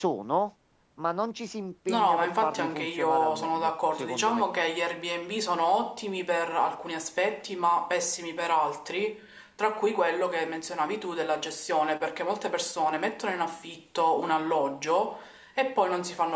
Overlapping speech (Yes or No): Yes